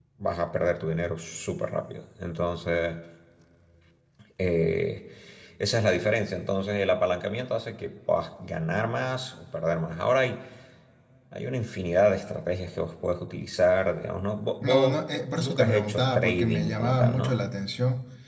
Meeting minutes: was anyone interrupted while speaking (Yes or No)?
Yes